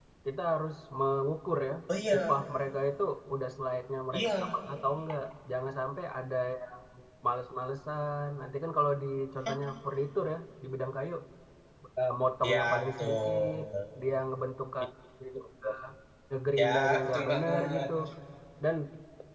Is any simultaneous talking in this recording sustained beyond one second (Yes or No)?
Yes